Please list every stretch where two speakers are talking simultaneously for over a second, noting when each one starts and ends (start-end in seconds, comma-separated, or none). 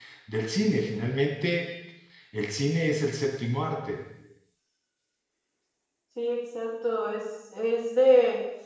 none